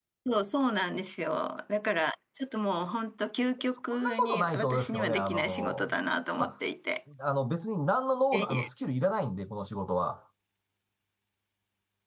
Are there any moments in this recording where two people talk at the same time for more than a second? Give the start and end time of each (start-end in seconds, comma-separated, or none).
3.7-5.9